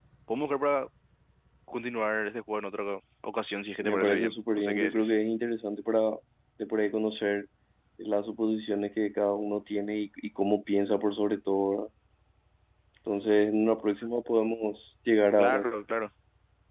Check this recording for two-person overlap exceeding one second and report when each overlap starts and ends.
3.8-5.1

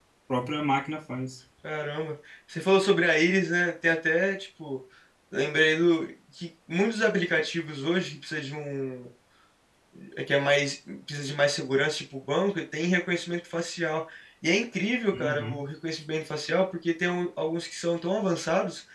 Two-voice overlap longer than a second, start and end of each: none

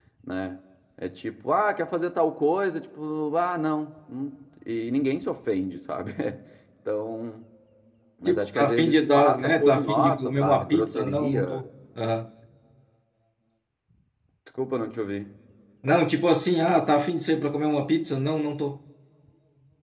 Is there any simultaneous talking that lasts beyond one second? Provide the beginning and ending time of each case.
8.2-11.6

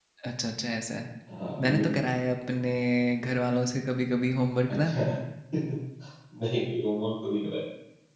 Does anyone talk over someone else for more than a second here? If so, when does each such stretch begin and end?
none

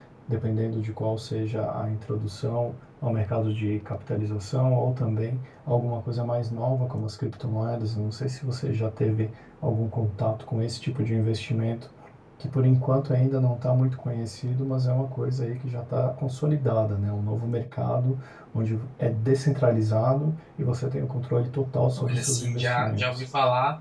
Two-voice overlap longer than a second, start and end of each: 22.0-23.2

